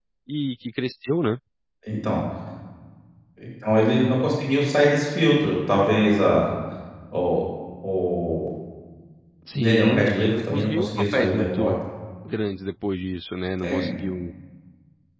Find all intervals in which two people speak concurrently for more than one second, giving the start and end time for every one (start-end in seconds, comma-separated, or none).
9.5-11.7